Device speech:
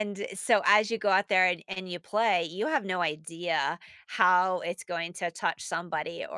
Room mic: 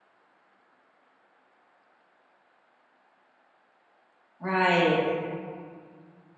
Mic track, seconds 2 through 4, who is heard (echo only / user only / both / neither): neither